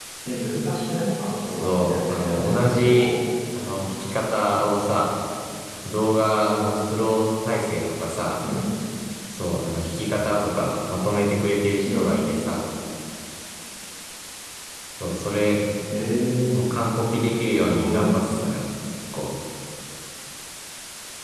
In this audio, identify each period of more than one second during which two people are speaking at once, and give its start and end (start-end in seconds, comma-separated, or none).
1.5-3.1